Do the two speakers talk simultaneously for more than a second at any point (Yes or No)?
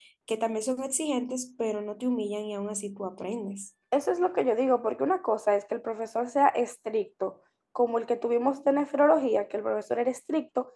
No